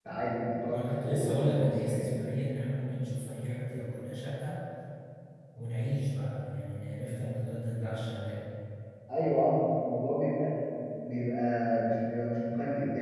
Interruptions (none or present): present